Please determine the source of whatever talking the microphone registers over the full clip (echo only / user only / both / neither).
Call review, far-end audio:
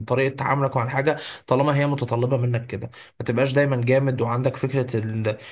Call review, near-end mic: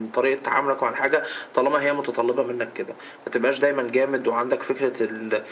echo only